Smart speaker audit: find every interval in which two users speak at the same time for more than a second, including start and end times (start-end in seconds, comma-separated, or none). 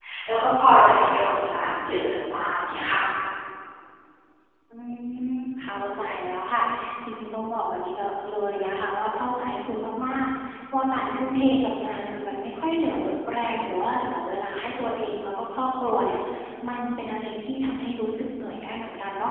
none